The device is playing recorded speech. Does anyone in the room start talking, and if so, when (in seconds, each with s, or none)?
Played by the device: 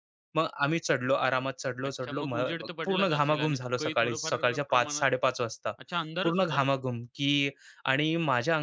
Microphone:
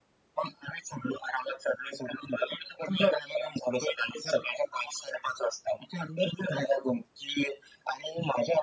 none